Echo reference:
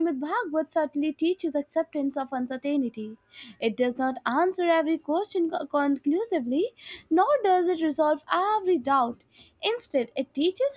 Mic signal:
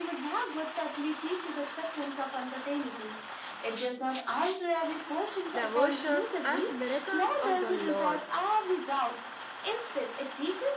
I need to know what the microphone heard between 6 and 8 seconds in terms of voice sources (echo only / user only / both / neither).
both